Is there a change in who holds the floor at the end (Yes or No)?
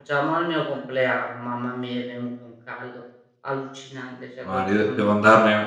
Yes